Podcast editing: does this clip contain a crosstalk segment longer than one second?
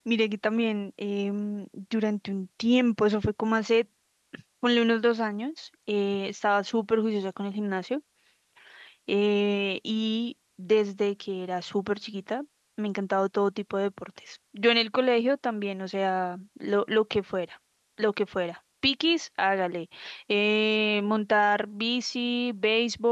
No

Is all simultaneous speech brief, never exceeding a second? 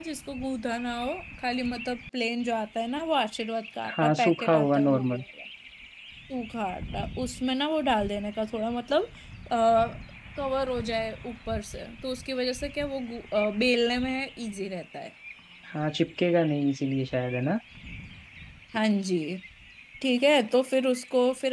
No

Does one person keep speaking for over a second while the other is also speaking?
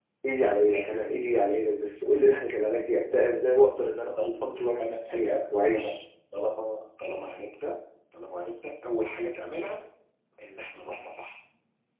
Yes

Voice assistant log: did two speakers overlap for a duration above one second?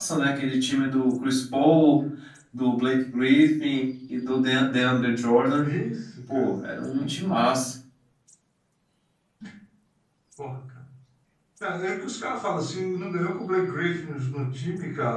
No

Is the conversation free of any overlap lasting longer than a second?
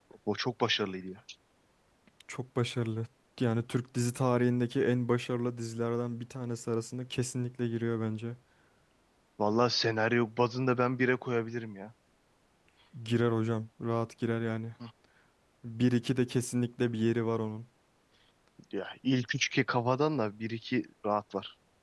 Yes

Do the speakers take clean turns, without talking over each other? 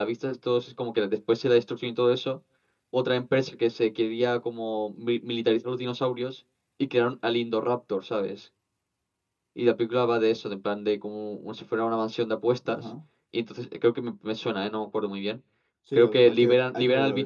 No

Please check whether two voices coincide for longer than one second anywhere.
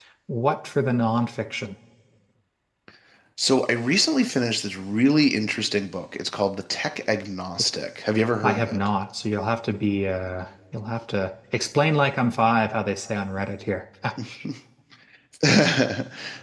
No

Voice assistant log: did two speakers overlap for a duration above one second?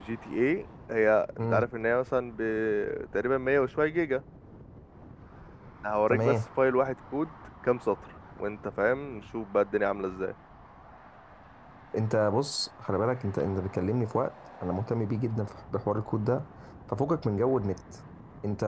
No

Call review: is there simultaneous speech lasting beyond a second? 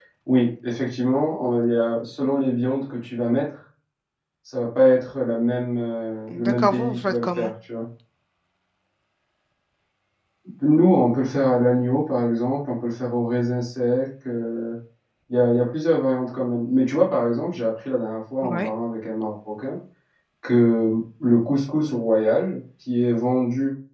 Yes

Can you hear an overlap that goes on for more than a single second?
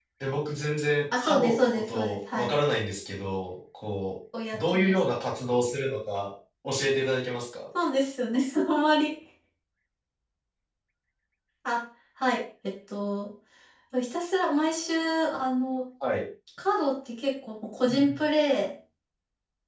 Yes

